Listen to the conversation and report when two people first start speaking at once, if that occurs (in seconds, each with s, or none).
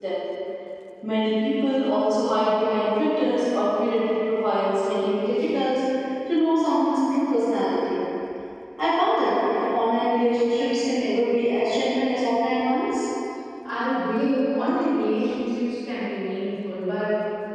none